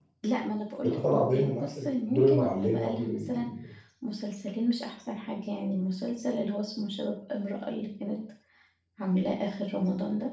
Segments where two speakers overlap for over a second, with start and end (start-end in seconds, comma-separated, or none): 0.8-3.5